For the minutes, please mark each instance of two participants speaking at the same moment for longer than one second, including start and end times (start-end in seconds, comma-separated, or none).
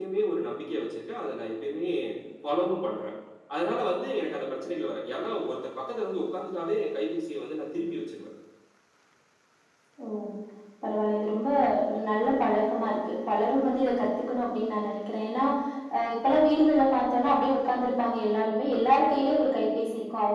none